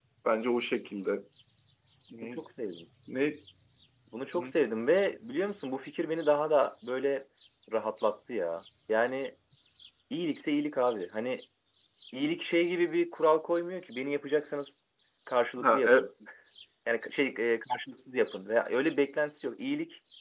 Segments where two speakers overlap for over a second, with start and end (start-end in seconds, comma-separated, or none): none